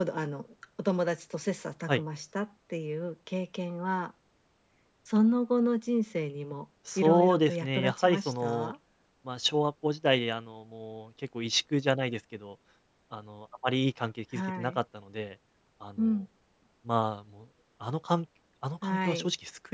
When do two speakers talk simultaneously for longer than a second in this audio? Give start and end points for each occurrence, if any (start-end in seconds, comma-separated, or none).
7.0-8.7